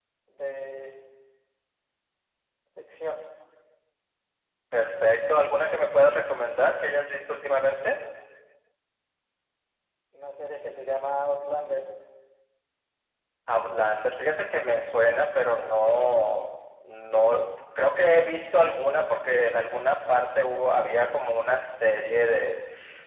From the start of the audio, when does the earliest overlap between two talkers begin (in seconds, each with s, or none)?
none